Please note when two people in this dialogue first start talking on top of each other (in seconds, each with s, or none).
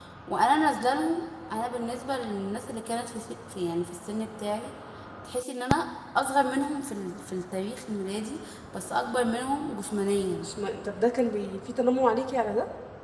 none